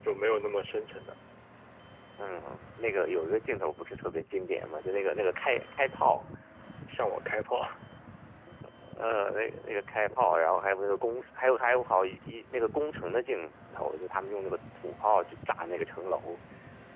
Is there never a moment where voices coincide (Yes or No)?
Yes